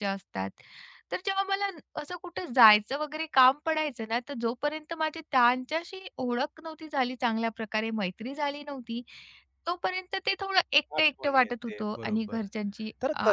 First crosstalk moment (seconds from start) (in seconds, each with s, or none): 11.0 s